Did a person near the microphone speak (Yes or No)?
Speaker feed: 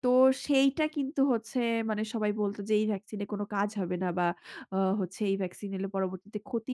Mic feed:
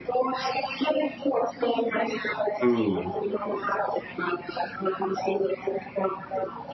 Yes